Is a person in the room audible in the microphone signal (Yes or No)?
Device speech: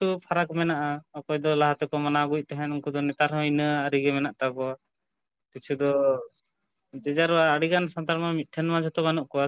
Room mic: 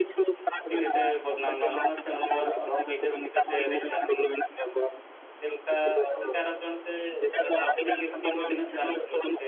Yes